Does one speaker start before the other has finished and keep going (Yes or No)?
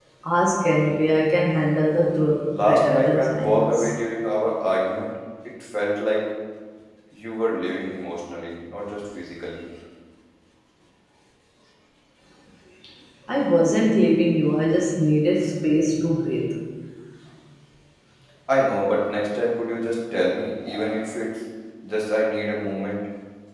Yes